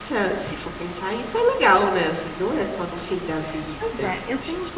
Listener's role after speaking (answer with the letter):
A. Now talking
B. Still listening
A